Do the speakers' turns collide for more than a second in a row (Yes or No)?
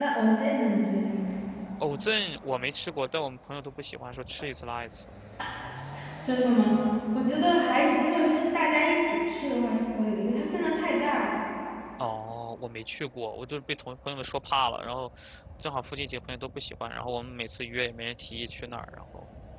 No